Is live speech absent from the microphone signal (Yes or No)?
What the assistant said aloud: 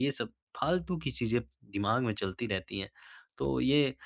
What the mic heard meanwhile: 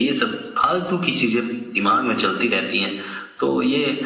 Yes